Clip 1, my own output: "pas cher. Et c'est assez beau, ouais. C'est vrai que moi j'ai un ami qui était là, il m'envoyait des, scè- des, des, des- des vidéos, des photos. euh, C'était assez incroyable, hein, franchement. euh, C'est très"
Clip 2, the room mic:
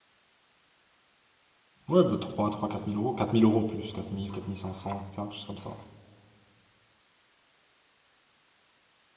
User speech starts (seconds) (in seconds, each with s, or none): 1.9 s